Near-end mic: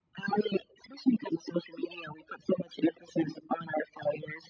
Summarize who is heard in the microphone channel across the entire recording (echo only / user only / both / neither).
echo only